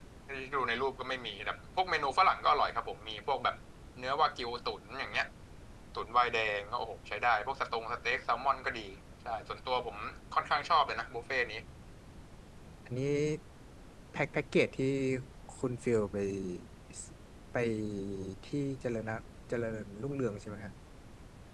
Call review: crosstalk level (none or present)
none